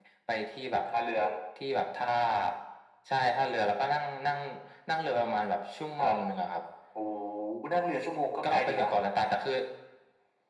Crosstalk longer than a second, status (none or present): none